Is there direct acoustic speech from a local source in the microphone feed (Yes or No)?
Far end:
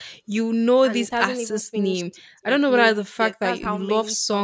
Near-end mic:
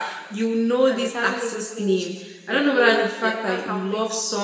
No